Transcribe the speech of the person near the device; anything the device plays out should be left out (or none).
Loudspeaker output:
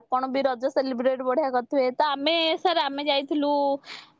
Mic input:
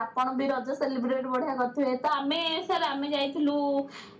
none